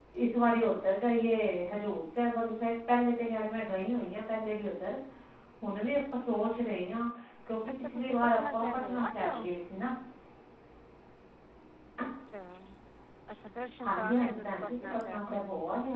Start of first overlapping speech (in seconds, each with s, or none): 7.8 s